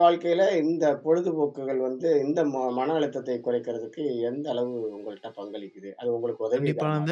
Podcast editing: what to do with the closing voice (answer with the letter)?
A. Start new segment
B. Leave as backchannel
A